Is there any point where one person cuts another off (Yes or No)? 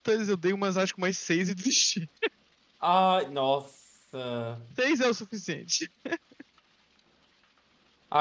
No